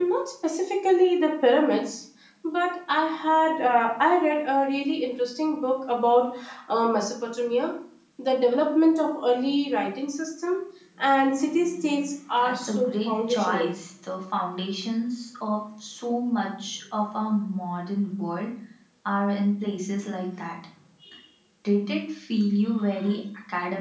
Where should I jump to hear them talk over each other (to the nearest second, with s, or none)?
12 s